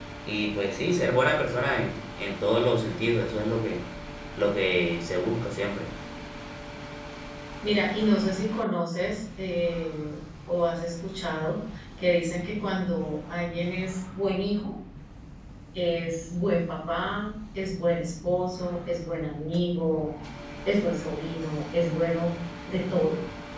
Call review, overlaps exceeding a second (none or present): none